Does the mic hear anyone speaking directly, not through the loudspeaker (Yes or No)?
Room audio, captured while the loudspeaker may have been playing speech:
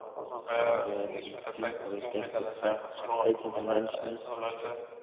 Yes